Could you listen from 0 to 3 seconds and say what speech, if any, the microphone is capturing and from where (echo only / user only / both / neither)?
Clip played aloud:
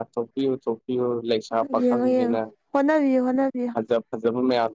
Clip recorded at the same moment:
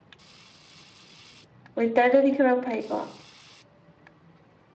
user only